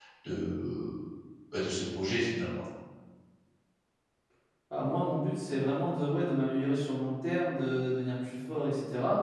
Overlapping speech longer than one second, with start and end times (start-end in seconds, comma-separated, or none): none